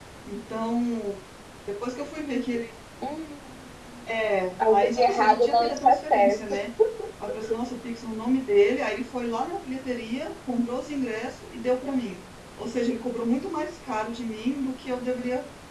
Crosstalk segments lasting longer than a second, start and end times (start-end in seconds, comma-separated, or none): 4.7-6.5